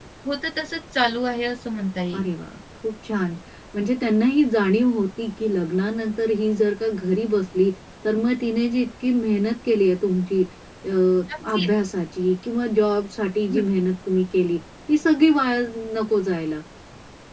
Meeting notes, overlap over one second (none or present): none